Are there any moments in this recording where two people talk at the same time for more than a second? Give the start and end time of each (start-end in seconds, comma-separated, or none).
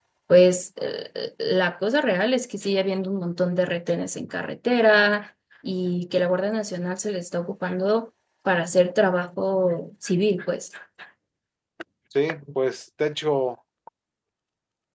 none